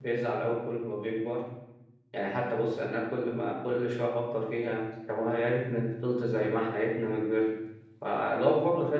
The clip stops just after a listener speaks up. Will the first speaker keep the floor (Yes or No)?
Yes